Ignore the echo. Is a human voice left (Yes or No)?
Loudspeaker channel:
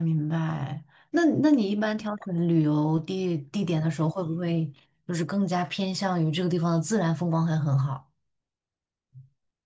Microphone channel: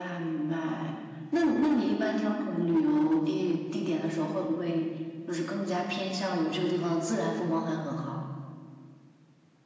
No